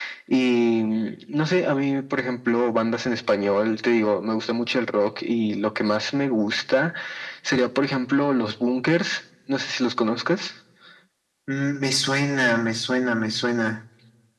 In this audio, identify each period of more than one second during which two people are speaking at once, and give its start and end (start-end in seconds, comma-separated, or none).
none